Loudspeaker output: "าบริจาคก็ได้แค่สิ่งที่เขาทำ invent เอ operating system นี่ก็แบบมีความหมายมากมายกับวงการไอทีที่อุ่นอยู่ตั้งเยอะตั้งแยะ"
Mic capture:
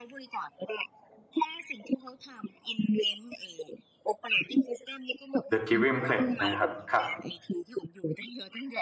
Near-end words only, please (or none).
The Giving Pledge นะครับครับ